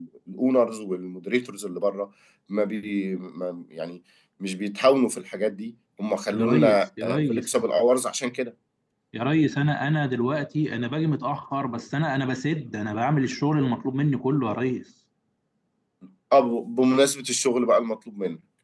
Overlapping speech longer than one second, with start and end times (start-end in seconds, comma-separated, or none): 6.3-7.6